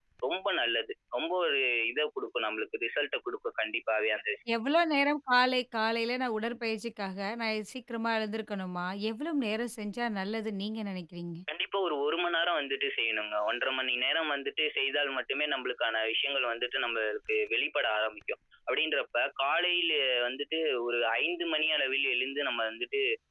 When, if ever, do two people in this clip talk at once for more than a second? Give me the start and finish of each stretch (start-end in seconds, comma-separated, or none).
none